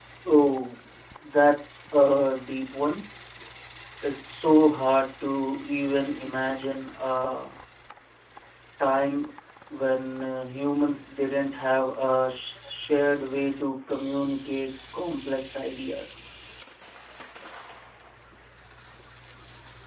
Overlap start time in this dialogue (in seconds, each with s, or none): none